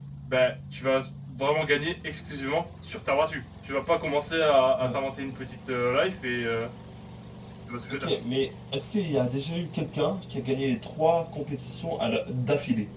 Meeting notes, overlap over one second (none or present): none